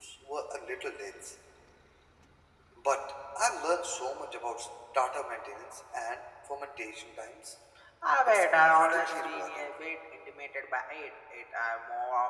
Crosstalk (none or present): present